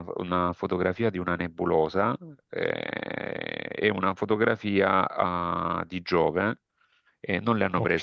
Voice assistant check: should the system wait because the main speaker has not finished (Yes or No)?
Yes